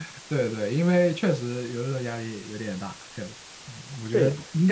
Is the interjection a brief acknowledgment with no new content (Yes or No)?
No